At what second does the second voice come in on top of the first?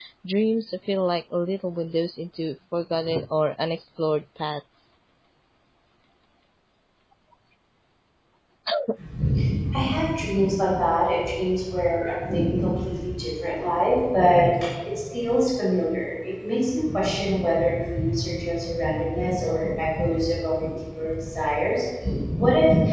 none

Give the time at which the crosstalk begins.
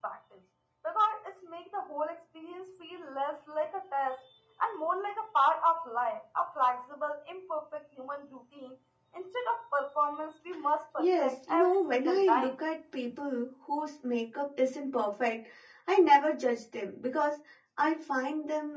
11.0 s

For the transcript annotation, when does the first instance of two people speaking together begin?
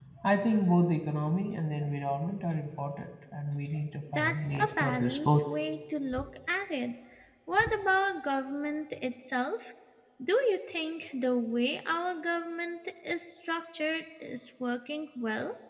4.2 s

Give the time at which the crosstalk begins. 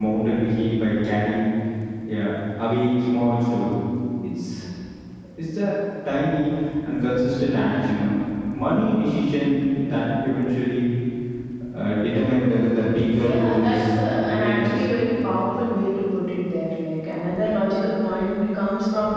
13.2 s

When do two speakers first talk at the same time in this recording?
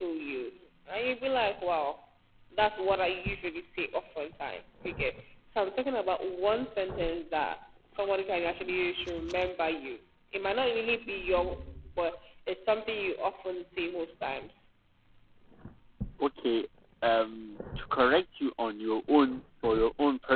none

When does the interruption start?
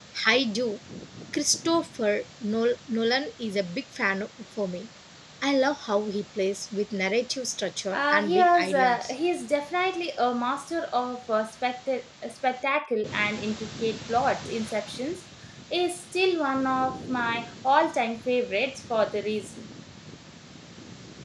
7.9 s

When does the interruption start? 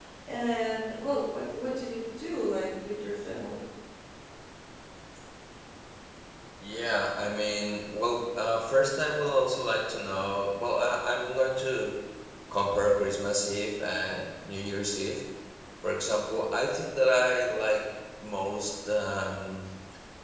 none

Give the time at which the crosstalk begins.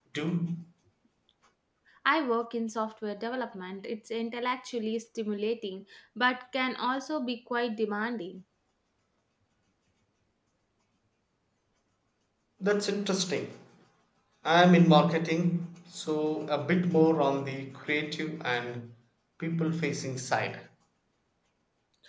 none

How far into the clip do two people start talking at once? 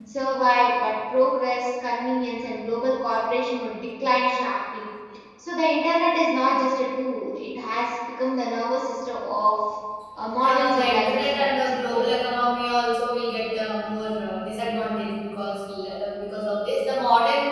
10.4 s

